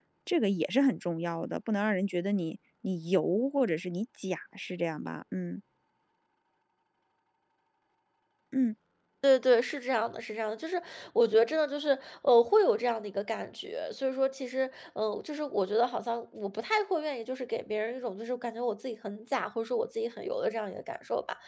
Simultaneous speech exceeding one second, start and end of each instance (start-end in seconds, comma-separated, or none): none